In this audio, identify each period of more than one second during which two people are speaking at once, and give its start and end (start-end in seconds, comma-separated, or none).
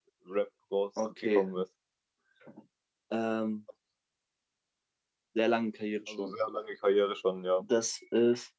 none